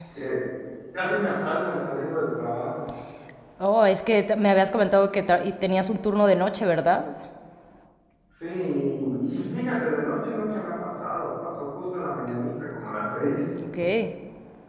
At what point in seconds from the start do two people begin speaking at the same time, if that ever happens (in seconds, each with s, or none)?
none